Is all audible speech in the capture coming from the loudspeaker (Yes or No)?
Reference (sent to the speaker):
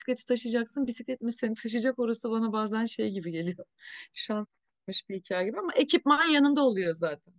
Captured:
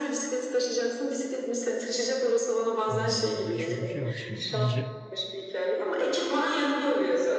No